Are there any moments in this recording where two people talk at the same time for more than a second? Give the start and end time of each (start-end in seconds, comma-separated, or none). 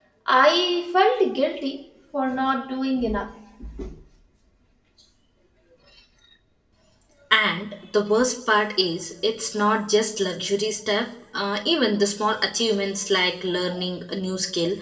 none